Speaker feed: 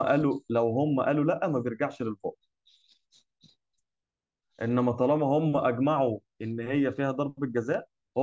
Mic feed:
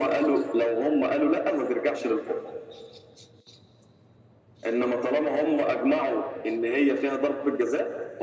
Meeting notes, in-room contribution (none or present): none